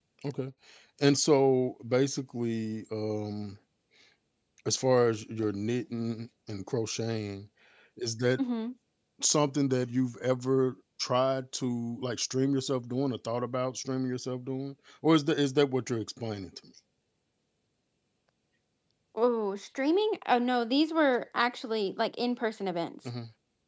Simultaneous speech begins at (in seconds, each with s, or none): none